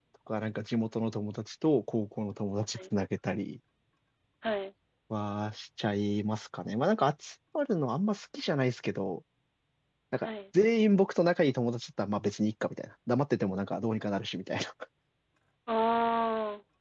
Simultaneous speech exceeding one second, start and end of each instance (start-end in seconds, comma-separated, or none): none